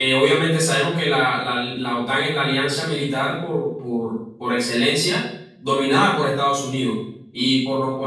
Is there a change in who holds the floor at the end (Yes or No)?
No